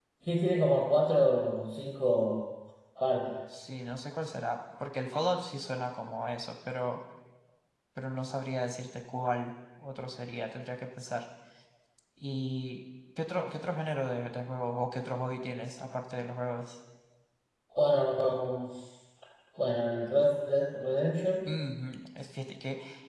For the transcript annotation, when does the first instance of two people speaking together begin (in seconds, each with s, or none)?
none